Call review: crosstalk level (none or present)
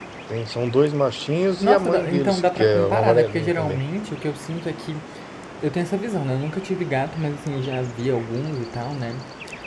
present